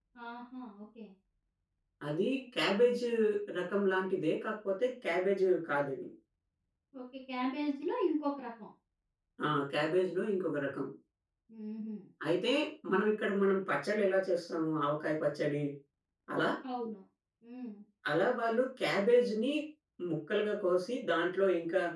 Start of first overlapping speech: none

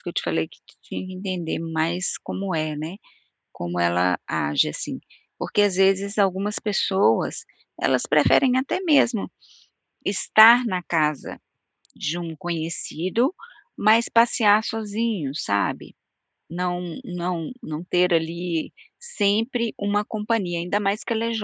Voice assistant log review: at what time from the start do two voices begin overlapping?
none

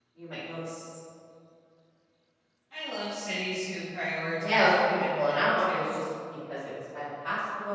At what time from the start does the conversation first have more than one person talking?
4.4 s

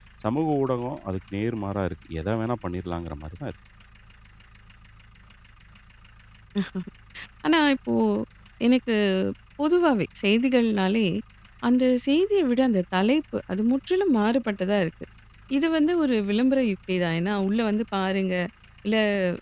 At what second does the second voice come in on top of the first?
none

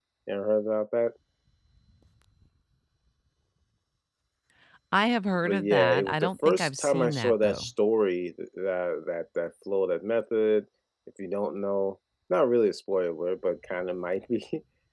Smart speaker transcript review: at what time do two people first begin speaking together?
5.5 s

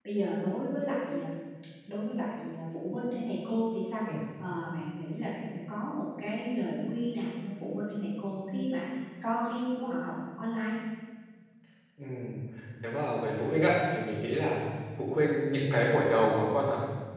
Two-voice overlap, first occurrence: none

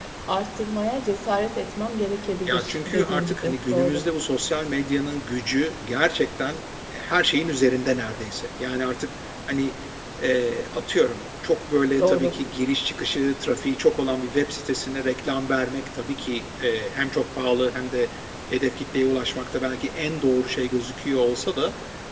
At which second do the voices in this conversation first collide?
2.5 s

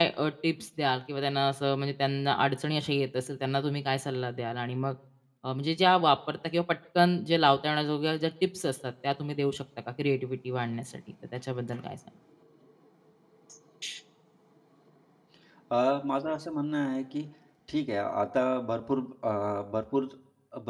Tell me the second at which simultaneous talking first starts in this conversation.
none

